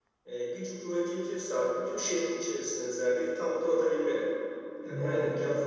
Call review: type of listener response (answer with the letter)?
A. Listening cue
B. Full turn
A